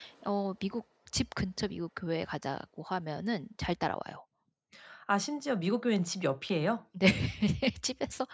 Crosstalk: none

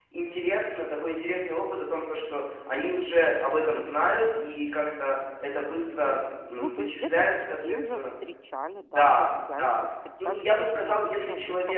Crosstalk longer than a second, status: present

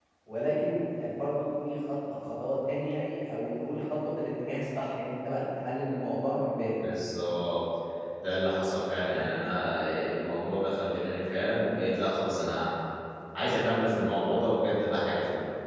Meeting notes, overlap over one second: none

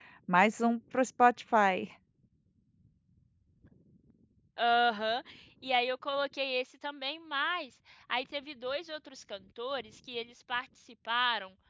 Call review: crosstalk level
none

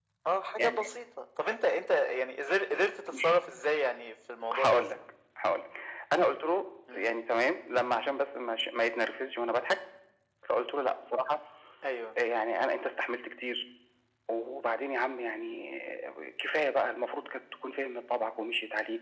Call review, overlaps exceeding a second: none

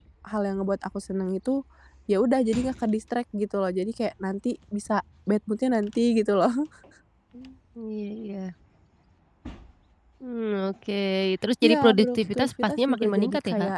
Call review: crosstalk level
present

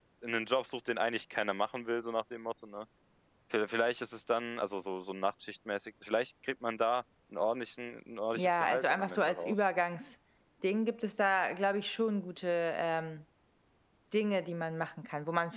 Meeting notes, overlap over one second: present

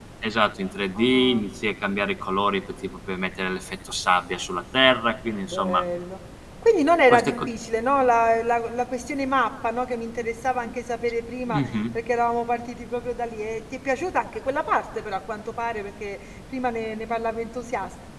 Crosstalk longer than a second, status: none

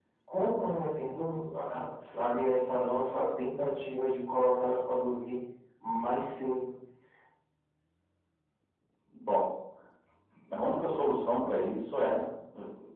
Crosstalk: none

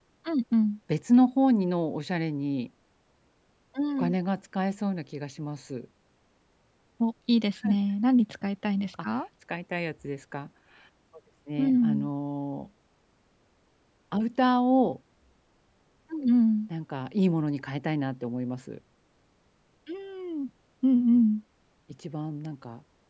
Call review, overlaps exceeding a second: none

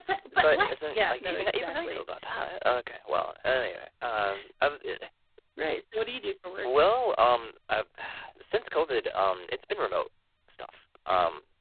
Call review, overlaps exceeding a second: present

